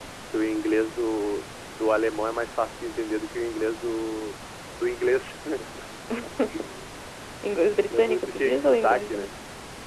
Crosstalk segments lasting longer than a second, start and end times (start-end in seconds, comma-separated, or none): 7.9-9.3